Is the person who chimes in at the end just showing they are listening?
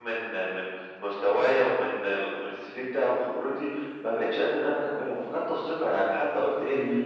Yes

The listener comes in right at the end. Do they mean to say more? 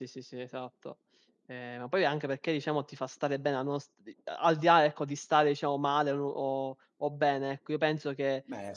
No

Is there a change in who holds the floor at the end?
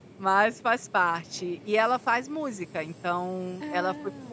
No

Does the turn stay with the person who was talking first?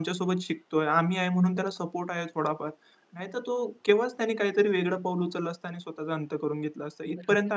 No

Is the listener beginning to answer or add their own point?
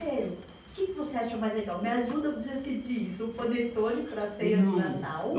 Yes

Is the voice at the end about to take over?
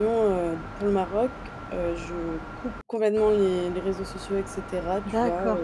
Yes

